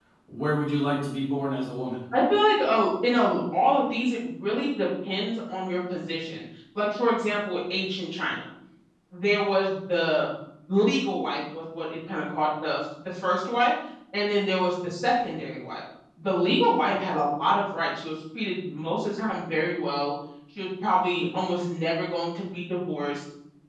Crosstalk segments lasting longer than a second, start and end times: none

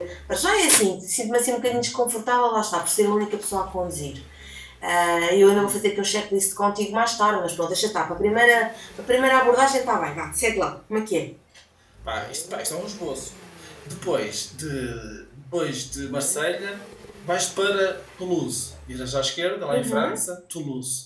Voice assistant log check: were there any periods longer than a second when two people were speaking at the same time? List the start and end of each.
none

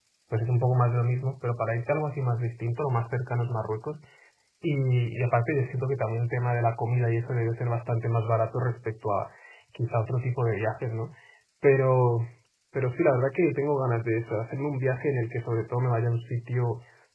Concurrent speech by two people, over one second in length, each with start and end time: none

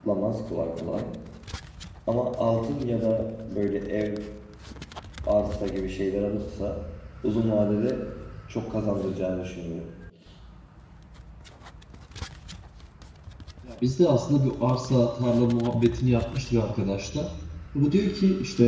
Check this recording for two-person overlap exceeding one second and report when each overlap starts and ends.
none

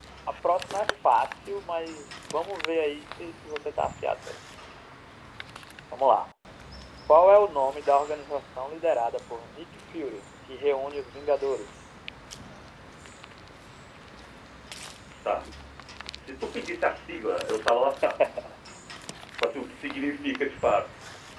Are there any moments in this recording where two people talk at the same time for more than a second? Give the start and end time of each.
none

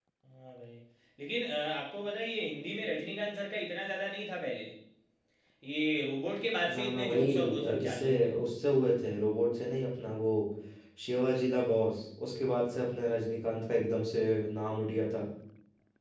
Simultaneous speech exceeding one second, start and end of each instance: 6.7-8.3

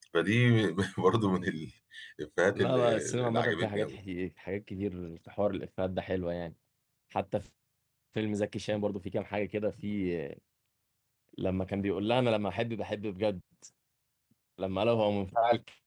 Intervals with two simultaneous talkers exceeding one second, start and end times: 2.5-4.0

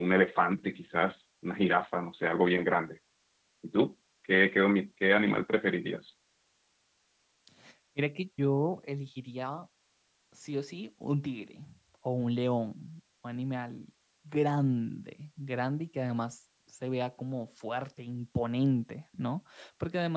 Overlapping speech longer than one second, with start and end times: none

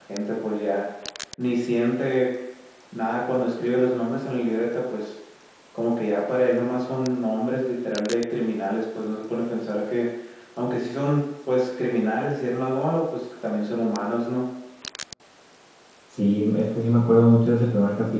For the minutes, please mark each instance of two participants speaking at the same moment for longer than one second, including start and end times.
none

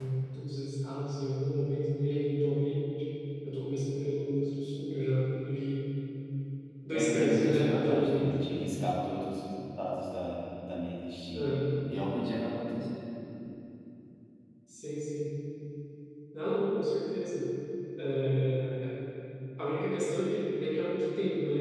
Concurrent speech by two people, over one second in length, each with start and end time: 6.9-8.3

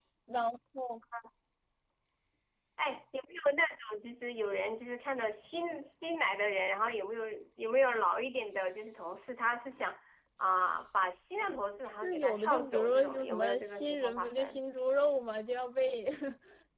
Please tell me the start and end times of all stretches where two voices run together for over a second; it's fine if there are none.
12.0-14.6

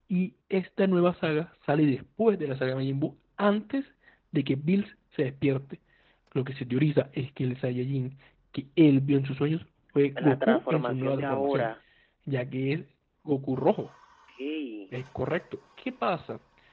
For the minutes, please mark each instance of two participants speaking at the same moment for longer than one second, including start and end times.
10.2-11.7

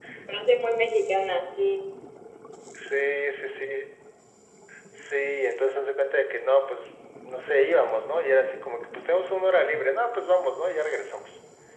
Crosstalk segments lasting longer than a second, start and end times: none

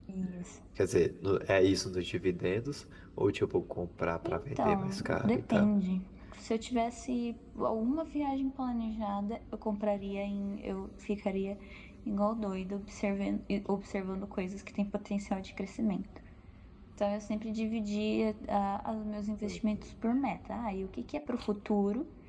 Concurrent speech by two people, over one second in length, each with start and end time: 4.2-5.7

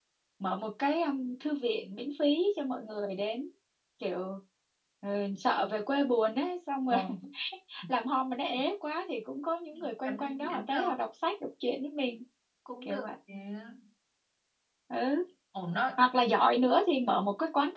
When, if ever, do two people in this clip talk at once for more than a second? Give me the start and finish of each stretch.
9.7-11.0

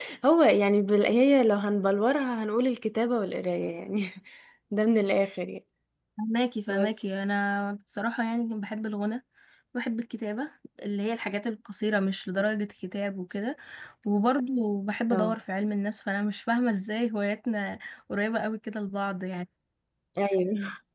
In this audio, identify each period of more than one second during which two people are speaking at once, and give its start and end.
none

